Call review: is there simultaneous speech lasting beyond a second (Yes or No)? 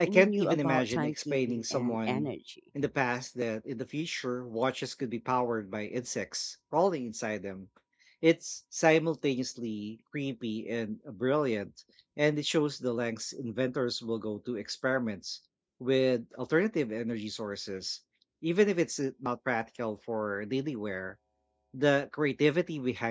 Yes